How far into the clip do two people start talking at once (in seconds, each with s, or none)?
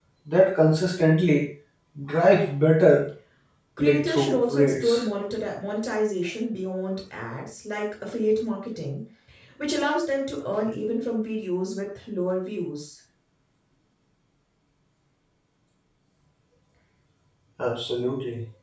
3.8 s